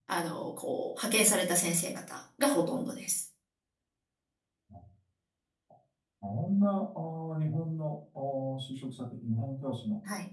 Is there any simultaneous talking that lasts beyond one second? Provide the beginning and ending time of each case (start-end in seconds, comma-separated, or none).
none